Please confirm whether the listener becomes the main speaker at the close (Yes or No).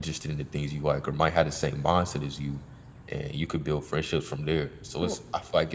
No